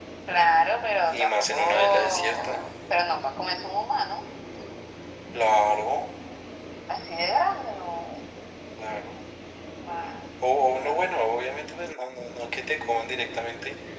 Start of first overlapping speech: 1.1 s

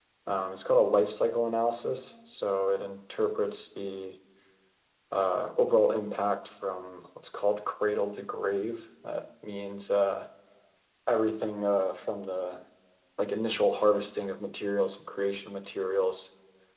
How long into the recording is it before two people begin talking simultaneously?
none

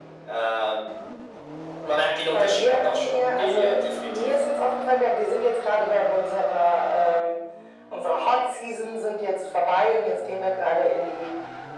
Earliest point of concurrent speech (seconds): 2.3 s

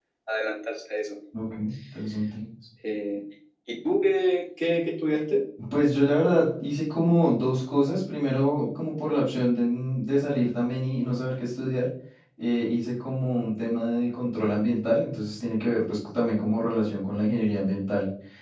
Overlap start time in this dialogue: none

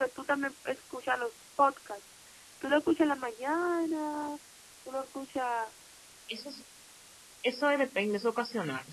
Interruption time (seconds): none

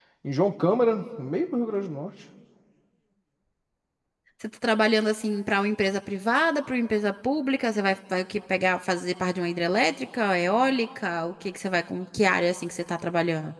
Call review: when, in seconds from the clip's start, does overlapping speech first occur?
none

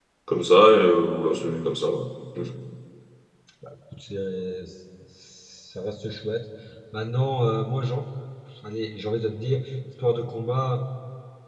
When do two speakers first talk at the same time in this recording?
none

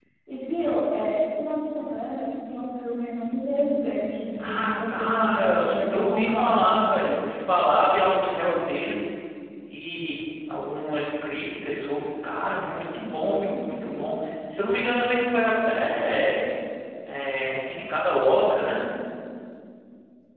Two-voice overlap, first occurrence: 4.4 s

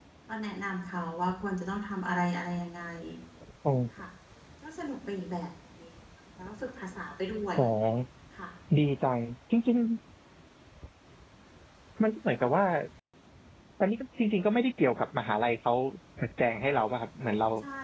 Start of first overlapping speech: none

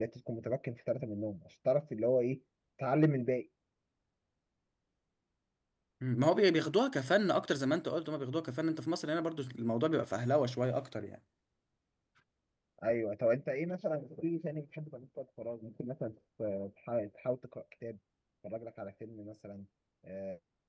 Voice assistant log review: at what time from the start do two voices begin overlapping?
none

